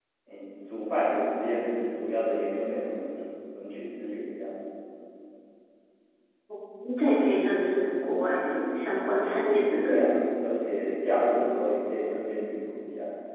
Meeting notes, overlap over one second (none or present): none